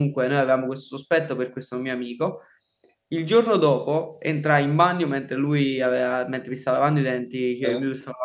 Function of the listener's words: listening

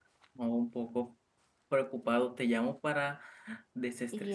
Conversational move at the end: listening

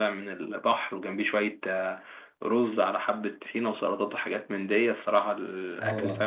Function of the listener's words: taking over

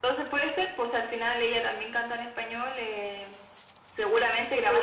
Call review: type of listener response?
taking over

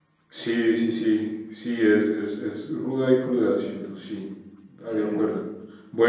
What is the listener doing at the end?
listening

